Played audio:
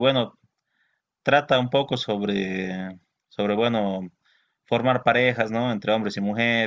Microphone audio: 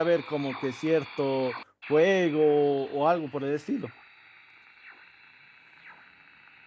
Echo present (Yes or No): No